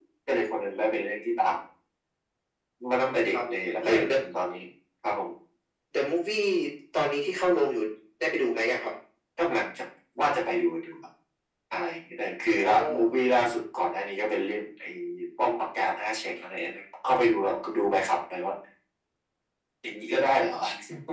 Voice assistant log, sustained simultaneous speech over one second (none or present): none